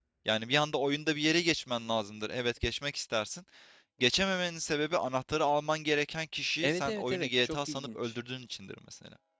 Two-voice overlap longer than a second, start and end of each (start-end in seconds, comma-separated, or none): 6.6-8.1